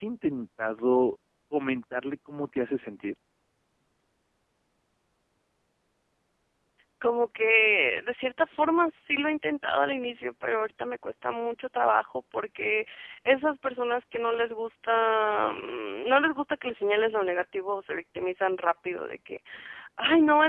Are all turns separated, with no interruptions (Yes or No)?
Yes